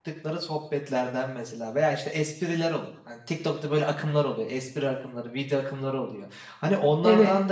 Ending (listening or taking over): listening